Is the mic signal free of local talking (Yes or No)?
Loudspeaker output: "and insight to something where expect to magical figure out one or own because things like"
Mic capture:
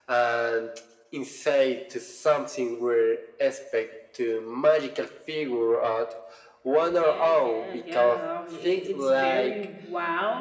No